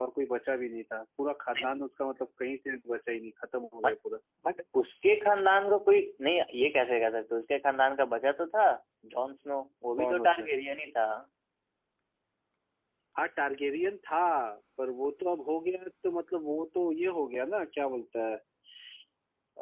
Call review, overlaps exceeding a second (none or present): none